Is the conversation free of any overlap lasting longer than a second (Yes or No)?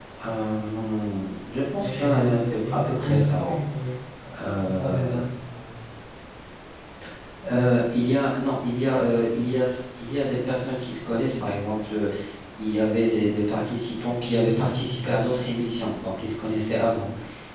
No